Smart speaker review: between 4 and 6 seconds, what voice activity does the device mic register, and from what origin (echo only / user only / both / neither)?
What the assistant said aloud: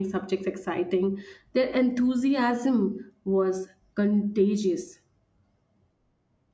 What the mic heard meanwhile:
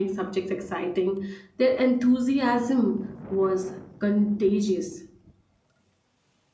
echo only